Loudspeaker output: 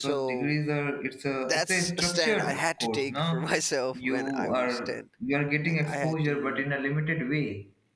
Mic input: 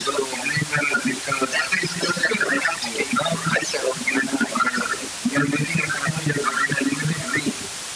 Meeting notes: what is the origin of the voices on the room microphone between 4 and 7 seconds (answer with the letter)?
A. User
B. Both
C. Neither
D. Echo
D